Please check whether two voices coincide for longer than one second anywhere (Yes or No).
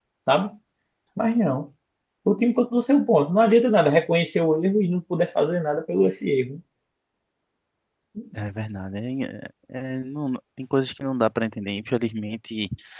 No